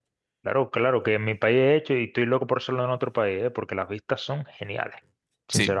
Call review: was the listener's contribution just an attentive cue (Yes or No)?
No